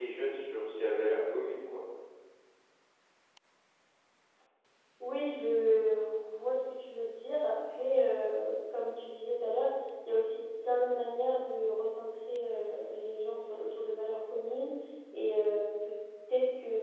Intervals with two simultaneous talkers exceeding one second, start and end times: none

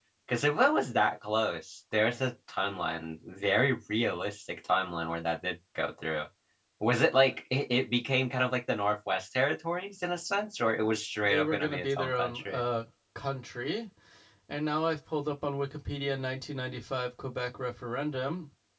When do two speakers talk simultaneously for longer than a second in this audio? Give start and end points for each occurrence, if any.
11.2-12.6

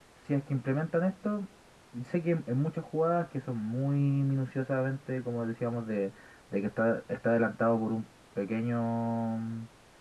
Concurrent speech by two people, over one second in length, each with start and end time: none

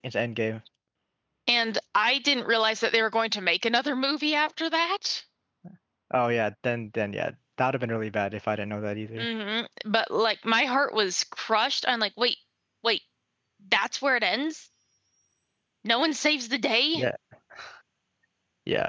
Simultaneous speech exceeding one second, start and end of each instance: none

